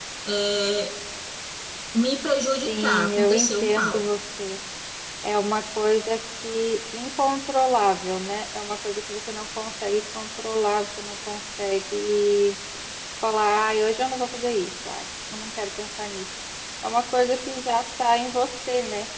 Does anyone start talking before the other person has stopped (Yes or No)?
Yes